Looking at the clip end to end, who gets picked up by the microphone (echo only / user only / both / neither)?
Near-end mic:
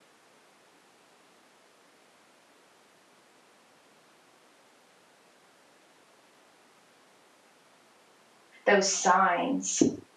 user only